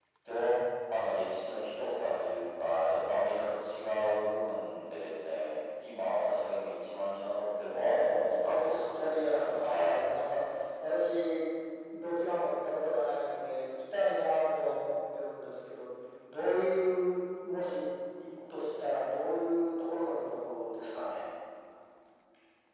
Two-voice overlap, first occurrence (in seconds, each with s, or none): 7.7 s